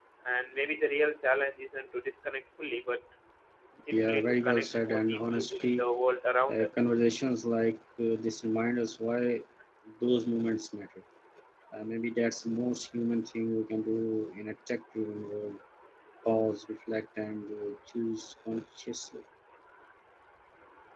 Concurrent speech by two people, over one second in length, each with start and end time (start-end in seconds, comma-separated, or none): 3.9-5.8